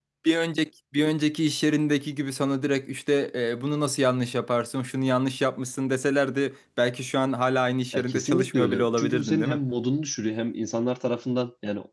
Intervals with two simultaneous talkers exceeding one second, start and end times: 7.9-9.6

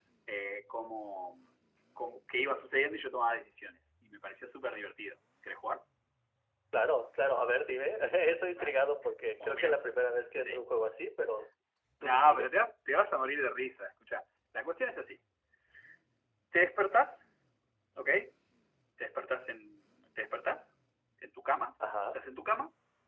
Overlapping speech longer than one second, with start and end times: none

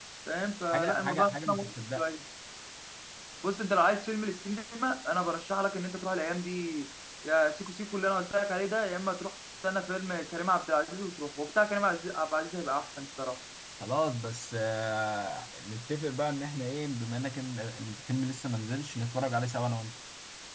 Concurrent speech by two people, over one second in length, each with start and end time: 0.7-2.0

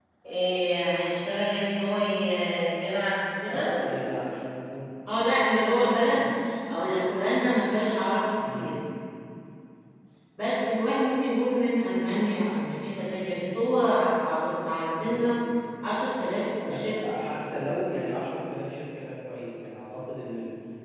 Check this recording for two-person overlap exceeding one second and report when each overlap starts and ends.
16.6-17.9

